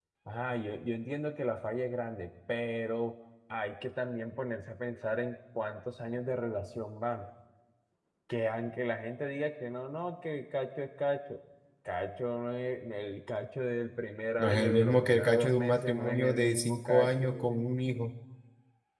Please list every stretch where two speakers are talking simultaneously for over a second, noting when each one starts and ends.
14.4-17.3

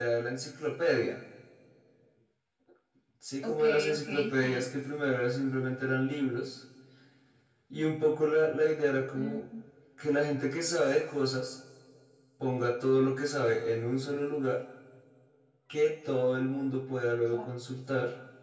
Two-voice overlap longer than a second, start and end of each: 3.4-4.7

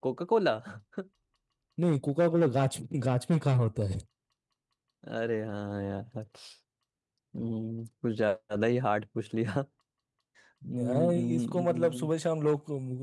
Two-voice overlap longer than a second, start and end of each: 10.7-12.1

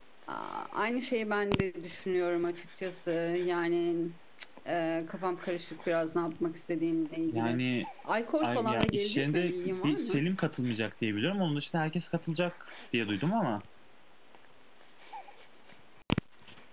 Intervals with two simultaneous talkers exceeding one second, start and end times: 8.4-10.2

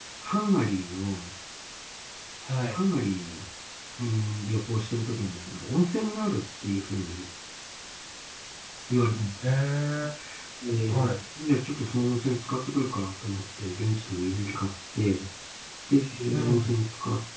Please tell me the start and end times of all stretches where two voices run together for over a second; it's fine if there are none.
none

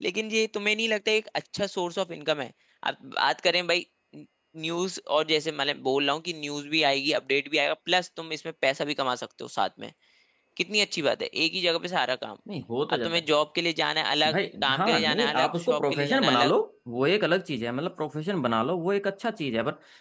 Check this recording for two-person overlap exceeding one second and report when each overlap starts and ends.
14.3-16.5

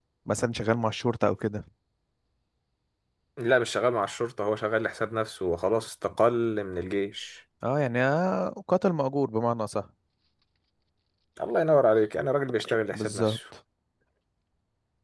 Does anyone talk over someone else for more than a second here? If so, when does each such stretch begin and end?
none

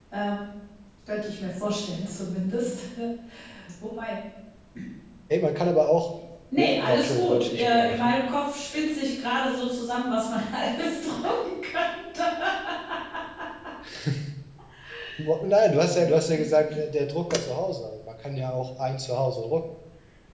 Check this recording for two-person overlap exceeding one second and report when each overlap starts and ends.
6.6-8.1

